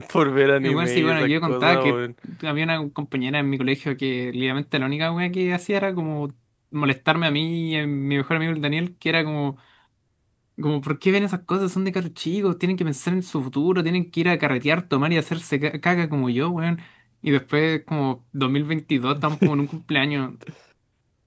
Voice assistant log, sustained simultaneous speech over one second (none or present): present